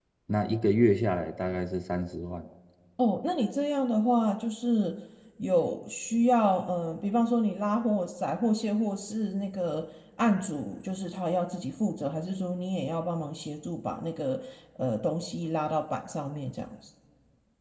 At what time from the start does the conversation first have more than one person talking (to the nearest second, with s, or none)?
none